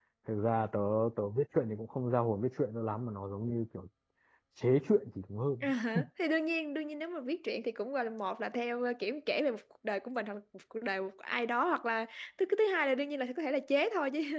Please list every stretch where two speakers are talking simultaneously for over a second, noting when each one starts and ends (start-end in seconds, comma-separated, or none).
none